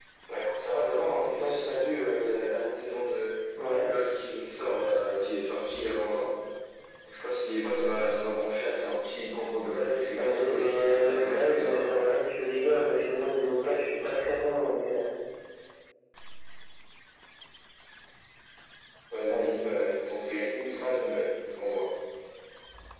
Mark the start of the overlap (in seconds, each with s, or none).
10.2 s